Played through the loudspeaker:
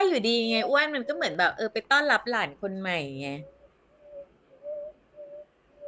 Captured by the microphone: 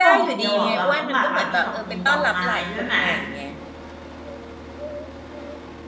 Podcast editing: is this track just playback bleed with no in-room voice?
No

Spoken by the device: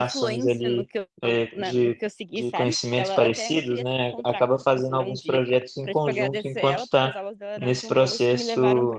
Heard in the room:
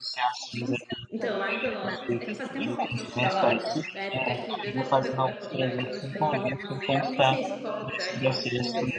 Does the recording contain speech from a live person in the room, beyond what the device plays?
Yes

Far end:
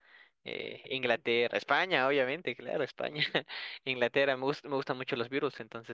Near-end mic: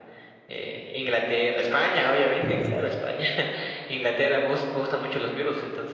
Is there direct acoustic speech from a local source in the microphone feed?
Yes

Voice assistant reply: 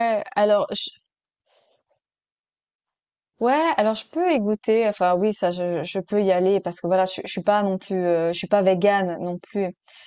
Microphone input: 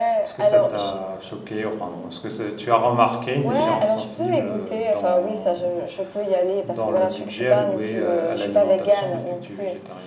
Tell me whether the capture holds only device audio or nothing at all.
No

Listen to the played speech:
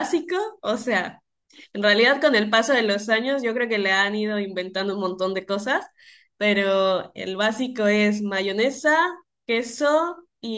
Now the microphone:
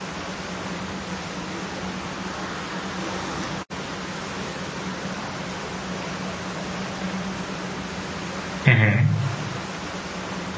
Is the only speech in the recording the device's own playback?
No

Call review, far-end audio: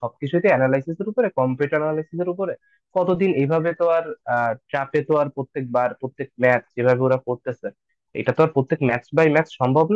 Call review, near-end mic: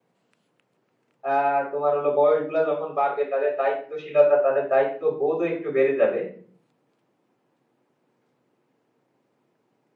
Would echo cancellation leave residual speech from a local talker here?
Yes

